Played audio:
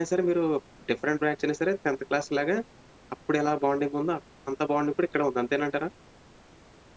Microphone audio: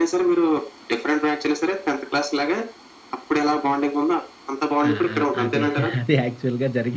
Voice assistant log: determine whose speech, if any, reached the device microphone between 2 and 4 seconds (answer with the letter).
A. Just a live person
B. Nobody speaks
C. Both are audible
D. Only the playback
D